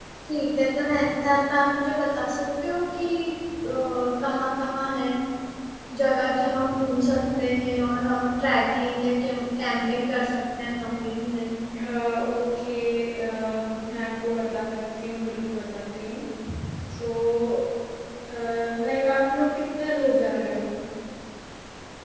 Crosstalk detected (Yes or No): No